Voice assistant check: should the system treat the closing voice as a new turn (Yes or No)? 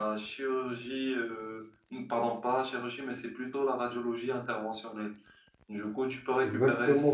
Yes